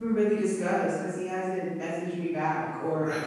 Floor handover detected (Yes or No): Yes